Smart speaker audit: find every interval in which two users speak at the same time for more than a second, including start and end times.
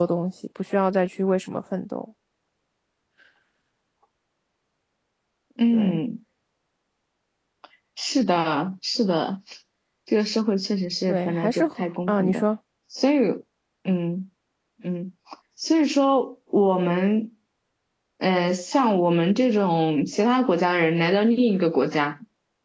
11.1-12.4

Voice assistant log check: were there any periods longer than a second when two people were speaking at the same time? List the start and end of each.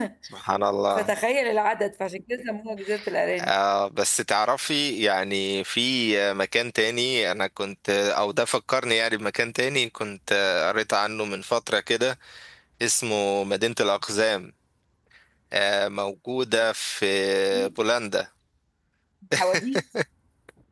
none

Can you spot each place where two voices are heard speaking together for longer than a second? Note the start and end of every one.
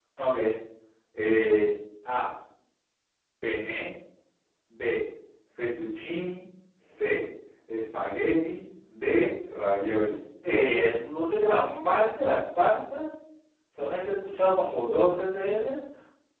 none

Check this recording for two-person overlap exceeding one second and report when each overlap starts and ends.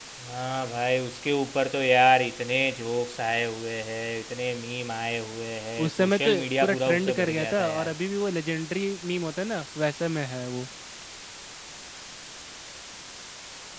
5.8-7.9

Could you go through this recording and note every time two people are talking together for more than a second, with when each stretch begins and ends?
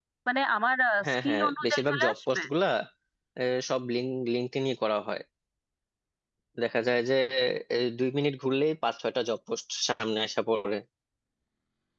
1.1-2.4

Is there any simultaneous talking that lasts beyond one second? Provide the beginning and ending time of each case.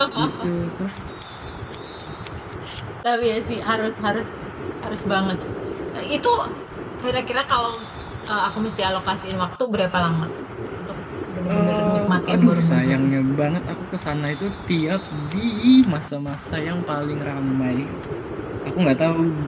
11.5-13.0

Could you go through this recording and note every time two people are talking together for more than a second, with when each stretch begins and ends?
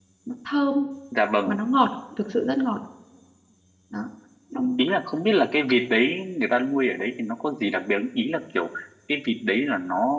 none

